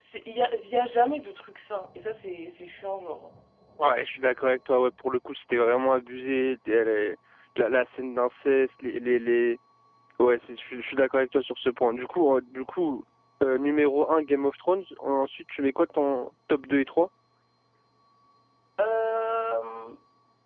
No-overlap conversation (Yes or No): Yes